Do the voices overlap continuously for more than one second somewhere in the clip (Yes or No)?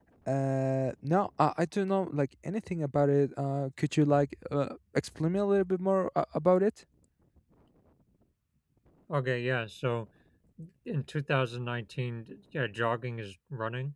No